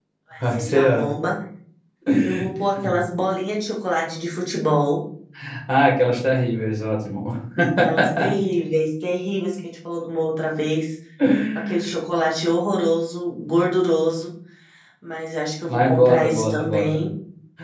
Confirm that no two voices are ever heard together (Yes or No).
No